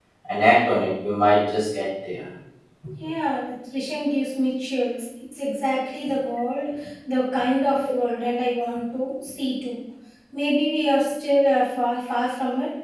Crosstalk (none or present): none